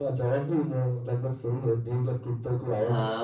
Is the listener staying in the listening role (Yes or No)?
No